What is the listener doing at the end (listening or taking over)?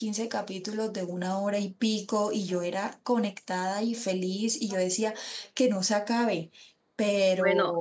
taking over